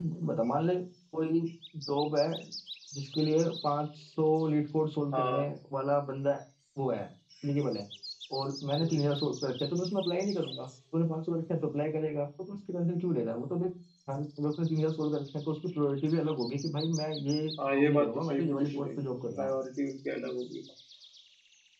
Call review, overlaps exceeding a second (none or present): present